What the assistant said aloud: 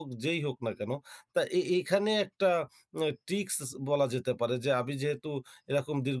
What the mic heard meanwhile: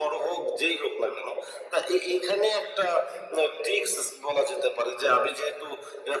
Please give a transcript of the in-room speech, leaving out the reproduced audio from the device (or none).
none